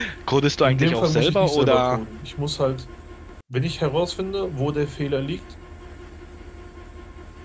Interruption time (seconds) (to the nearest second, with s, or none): 1 s